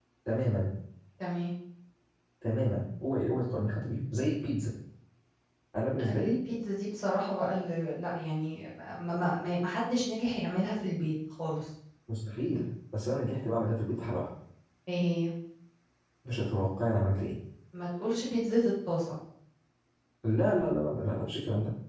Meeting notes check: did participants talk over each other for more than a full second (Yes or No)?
No